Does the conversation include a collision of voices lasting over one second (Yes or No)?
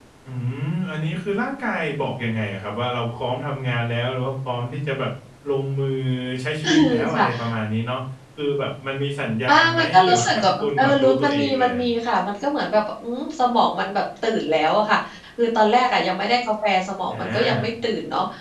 Yes